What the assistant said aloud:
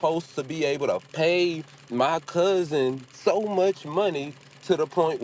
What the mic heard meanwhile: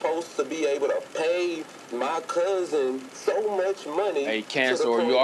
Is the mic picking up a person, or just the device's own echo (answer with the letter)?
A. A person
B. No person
A